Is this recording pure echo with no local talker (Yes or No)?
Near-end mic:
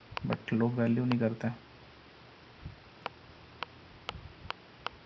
No